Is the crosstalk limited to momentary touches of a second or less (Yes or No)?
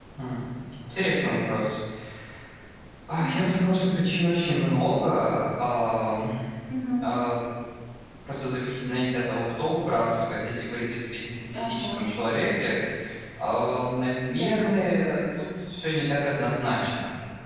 Yes